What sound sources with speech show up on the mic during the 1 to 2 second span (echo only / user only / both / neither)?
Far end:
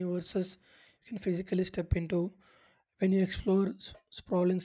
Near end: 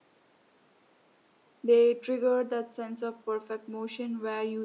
user only